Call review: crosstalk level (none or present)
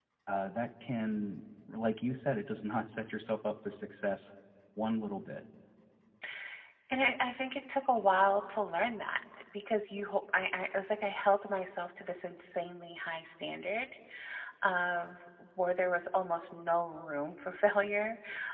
none